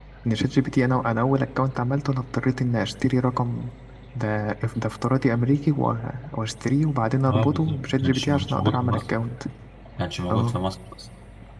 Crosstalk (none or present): present